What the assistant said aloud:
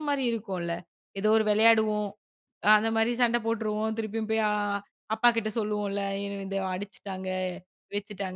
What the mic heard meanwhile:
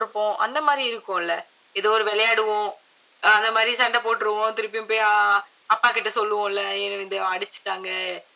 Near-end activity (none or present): none